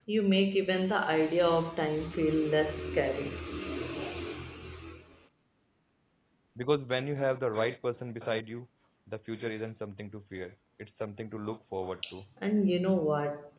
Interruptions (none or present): none